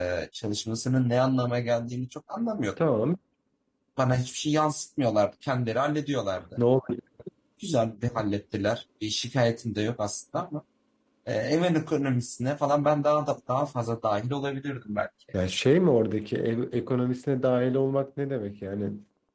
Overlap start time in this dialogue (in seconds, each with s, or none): none